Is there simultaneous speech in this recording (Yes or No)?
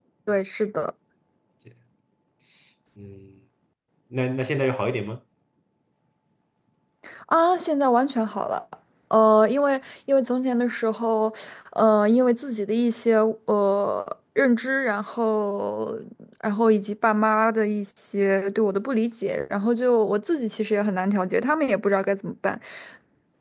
No